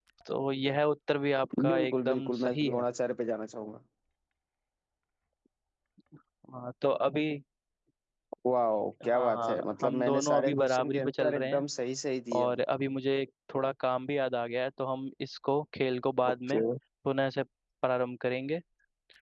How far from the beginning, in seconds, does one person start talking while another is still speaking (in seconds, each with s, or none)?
1.6 s